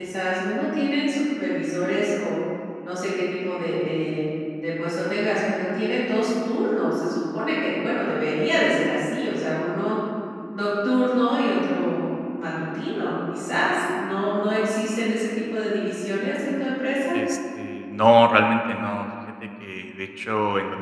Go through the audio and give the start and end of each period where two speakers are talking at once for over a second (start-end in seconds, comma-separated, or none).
none